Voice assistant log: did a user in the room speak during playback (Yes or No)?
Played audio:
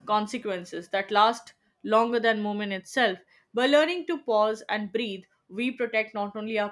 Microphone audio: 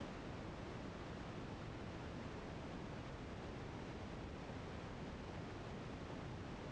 No